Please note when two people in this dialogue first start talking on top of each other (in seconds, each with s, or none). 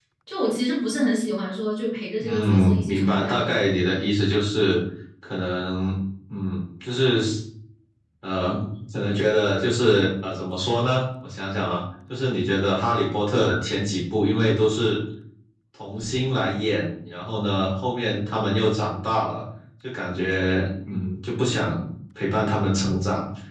2.2 s